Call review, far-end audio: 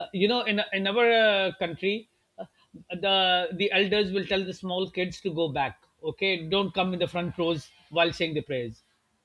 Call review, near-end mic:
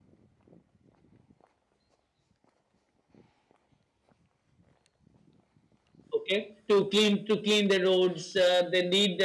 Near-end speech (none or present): present